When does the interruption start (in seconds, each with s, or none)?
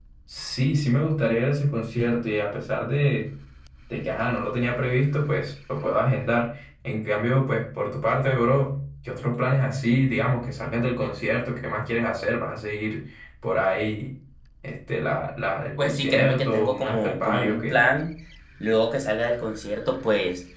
15.8 s